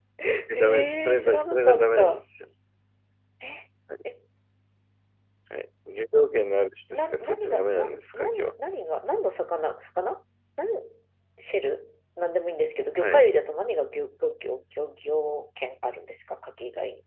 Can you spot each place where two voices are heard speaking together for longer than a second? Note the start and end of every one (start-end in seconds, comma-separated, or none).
0.6-2.2, 6.9-8.5